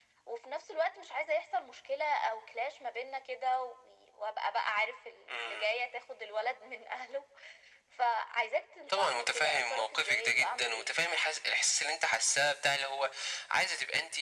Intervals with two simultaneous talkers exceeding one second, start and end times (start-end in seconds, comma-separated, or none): 8.9-10.9